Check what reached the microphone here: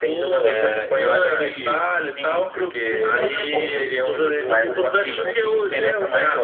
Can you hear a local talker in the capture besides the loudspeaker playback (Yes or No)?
Yes